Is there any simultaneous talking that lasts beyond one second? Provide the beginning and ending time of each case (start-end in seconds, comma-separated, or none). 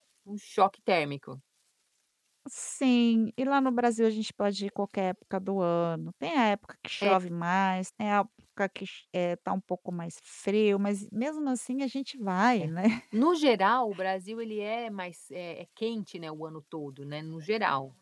none